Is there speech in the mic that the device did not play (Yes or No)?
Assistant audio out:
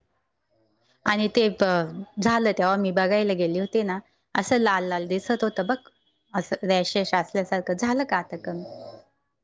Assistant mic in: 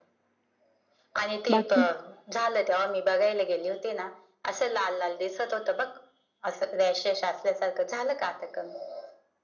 Yes